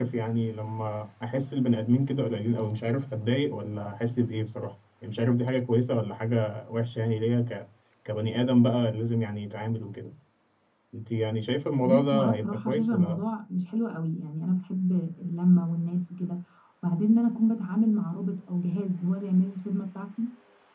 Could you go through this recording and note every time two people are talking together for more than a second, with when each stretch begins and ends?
11.8-13.2

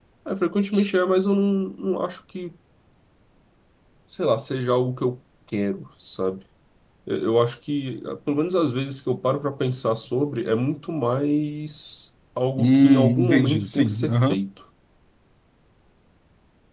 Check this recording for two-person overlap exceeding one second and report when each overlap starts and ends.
12.6-14.4

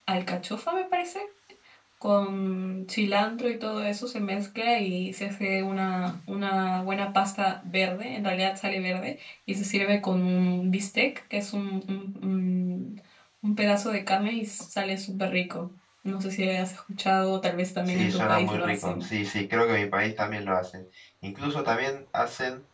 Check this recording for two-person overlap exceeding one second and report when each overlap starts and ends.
17.9-19.1

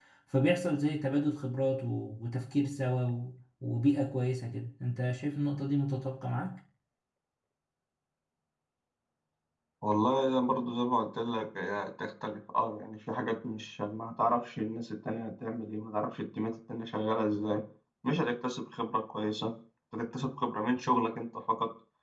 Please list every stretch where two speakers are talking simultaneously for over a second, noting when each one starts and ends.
none

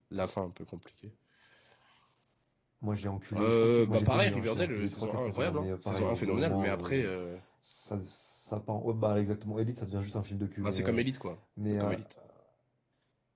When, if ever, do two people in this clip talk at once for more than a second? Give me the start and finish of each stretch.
3.3-7.1

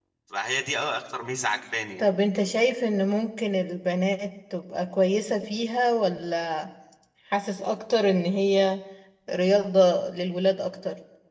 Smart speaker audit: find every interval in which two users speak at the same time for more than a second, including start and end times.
none

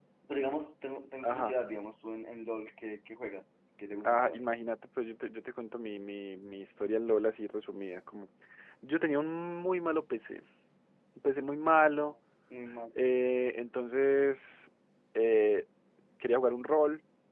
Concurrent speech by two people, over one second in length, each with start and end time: none

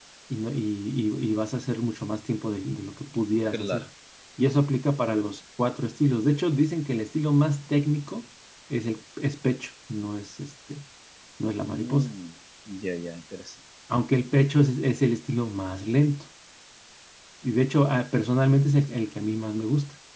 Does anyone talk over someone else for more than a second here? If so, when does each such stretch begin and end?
none

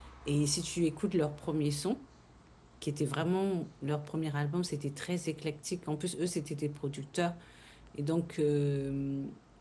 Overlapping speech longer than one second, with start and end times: none

